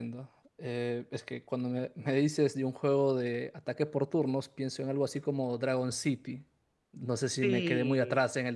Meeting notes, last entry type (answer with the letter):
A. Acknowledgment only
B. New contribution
A